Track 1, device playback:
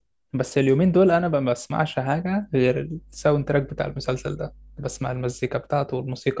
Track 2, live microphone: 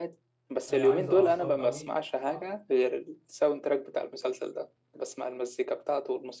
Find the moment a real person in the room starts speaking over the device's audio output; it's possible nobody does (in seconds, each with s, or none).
0.7 s